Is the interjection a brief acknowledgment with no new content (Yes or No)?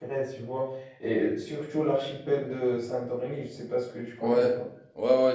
No